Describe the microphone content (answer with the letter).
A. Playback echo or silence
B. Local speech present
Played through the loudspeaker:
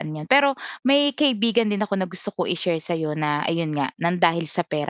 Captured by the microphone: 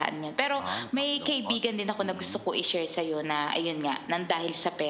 B